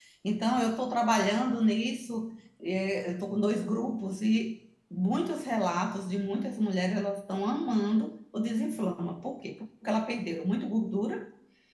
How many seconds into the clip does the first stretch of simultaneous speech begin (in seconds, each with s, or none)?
none